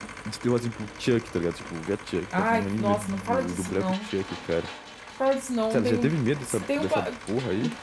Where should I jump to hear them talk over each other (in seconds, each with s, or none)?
2.4 s